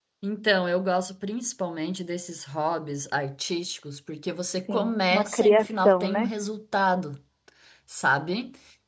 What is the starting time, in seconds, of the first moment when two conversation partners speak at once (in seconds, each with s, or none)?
4.7 s